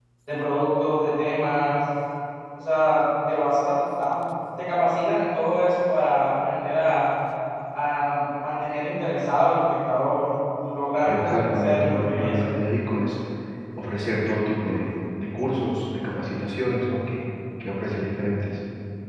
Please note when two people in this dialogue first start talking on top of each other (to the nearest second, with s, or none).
11 s